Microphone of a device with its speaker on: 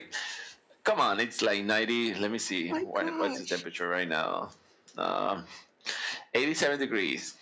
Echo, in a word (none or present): present